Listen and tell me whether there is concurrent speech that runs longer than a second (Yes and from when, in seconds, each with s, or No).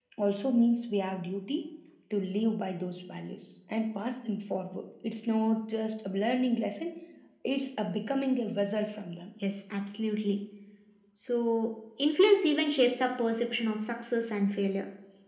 No